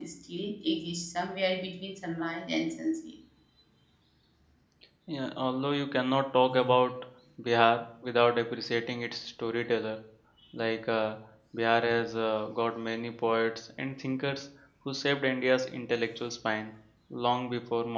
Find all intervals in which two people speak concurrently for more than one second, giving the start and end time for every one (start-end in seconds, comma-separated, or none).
none